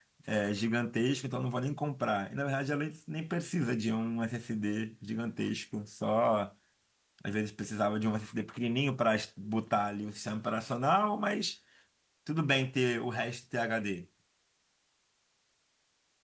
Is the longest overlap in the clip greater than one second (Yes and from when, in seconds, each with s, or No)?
No